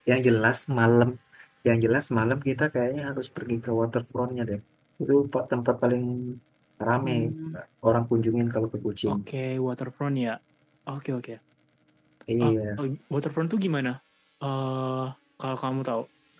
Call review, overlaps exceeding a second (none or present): none